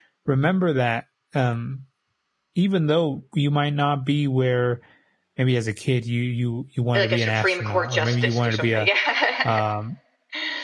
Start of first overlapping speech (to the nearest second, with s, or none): 7 s